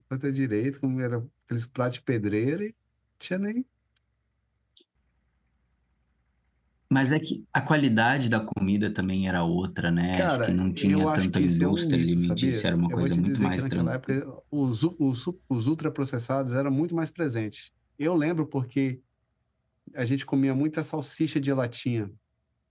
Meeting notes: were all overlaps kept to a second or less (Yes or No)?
No